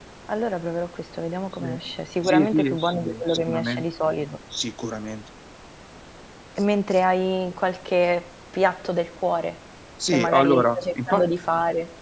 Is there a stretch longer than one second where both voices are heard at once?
Yes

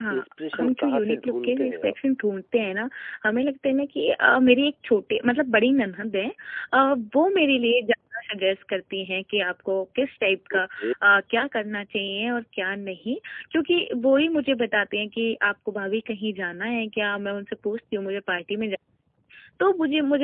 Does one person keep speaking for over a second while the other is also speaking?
Yes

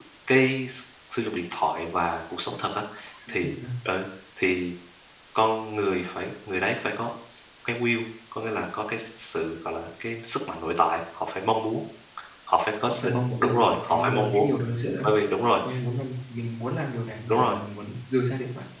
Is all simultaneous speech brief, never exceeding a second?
No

